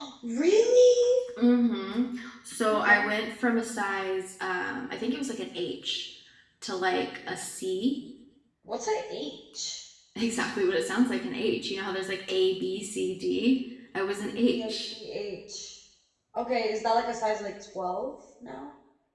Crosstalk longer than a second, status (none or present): none